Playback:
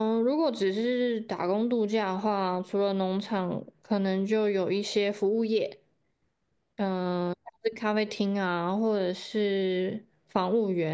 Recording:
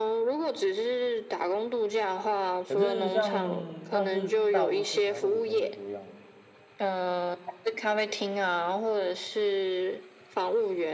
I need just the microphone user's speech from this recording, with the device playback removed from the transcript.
可是像那是大都市才会有这么多样，

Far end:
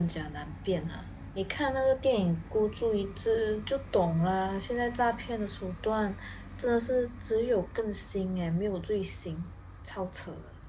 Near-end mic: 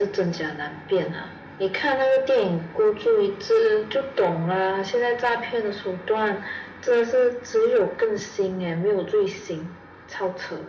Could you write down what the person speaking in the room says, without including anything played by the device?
none

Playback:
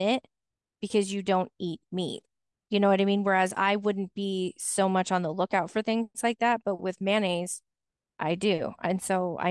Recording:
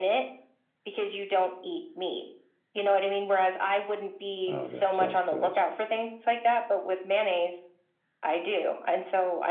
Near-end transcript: Oh, that sounds good.

